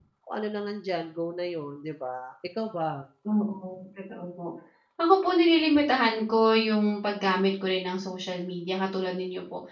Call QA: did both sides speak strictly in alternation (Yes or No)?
Yes